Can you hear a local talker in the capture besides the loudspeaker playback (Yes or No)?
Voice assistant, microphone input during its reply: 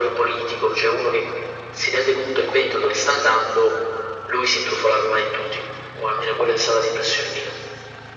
No